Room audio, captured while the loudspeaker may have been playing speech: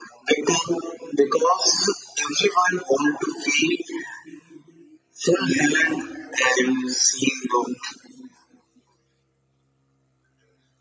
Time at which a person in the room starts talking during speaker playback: 5.3 s

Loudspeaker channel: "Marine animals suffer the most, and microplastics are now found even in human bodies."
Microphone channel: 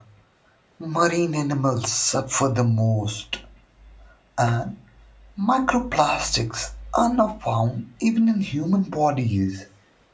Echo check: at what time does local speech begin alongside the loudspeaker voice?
none

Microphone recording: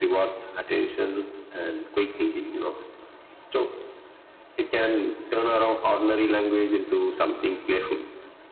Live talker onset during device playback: none

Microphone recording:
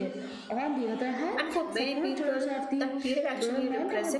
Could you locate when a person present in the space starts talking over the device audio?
1.4 s

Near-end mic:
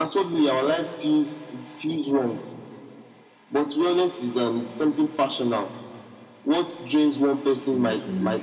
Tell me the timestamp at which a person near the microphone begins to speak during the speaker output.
7.5 s

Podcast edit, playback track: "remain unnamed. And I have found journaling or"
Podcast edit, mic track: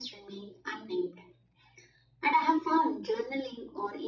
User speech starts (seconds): none

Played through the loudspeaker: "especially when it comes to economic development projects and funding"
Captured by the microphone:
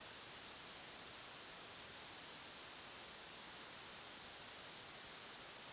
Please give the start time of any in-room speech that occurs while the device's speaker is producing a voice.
none

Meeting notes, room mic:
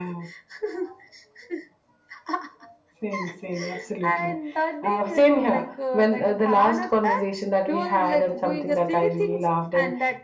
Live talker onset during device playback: none

